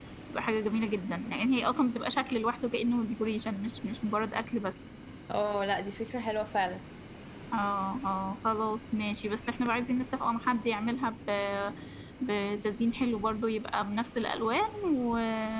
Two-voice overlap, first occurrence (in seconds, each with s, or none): none